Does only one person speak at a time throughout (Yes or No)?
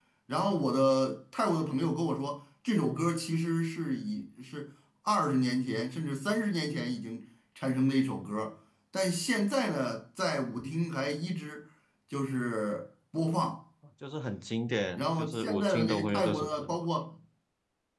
No